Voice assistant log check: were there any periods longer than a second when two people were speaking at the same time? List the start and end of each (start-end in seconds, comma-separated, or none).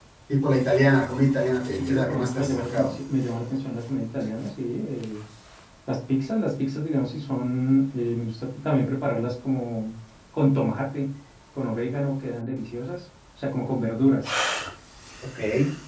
1.7-2.9